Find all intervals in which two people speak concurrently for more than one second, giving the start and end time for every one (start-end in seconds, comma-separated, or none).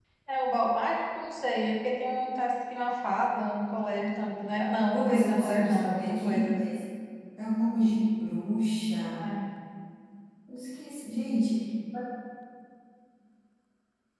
4.8-6.6